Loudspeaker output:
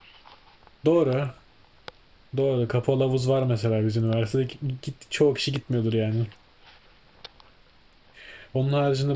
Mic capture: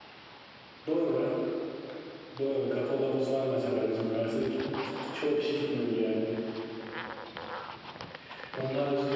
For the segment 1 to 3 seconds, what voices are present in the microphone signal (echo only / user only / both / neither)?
echo only